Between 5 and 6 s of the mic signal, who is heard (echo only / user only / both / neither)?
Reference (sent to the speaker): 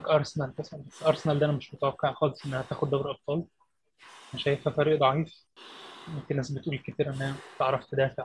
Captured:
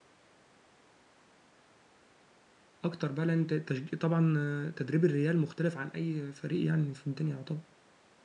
user only